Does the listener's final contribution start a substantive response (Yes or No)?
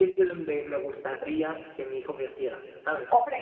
Yes